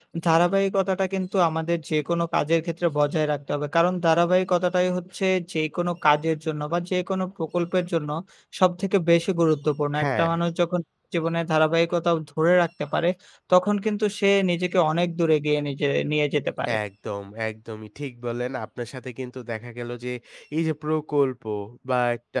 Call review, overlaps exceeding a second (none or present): none